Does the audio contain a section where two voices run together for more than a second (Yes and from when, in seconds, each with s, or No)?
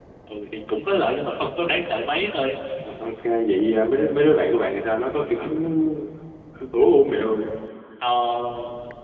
No